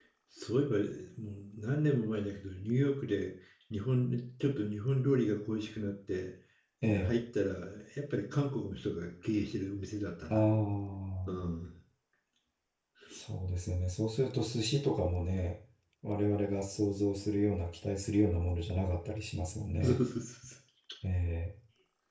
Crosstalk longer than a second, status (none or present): none